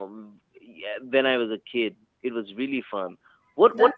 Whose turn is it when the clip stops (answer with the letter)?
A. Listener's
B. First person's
A